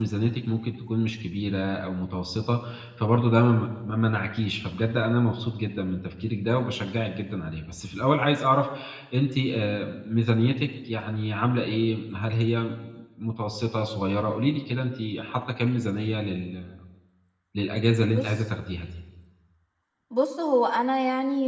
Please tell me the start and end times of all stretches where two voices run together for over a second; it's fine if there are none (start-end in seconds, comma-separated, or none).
none